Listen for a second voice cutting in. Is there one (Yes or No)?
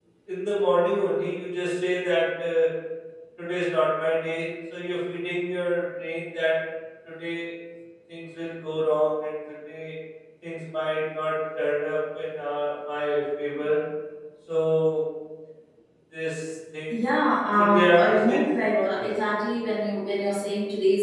Yes